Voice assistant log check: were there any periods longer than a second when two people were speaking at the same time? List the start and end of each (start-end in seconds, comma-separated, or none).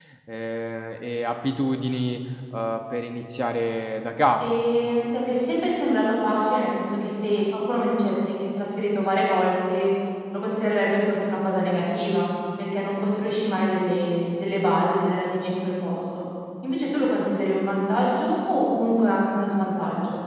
none